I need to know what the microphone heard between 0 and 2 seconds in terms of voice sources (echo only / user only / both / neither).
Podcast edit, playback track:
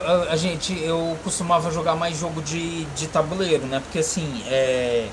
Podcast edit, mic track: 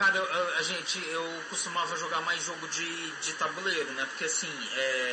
echo only